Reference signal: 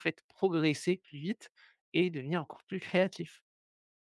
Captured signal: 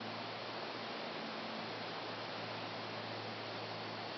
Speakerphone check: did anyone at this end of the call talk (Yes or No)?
No